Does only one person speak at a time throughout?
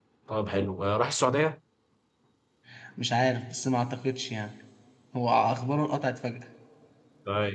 Yes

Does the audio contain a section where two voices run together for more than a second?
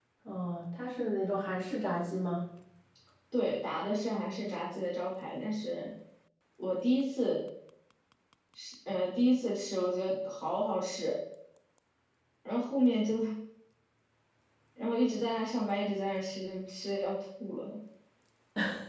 No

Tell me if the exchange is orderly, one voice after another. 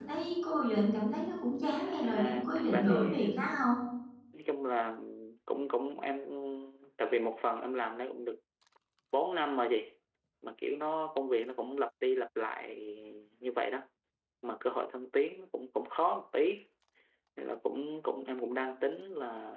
No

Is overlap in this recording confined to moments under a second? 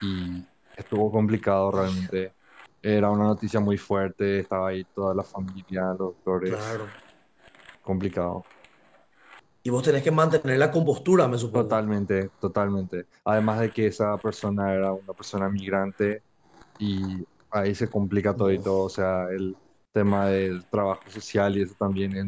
Yes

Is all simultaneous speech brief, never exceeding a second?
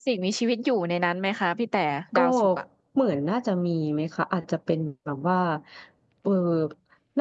Yes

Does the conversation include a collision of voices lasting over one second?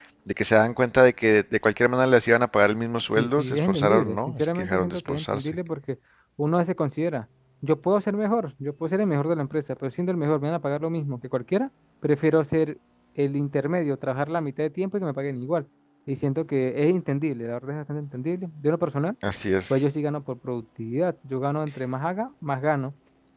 Yes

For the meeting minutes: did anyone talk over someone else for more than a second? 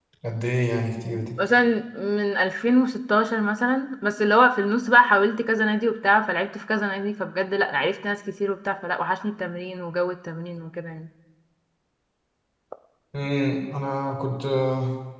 No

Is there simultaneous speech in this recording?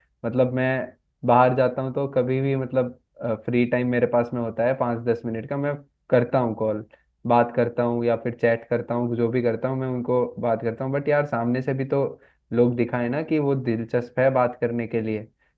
No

